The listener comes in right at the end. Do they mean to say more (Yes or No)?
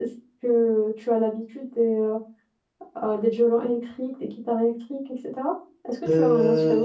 Yes